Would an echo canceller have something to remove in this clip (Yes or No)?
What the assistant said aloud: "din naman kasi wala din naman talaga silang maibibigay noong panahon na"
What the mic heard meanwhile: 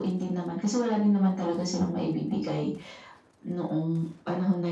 Yes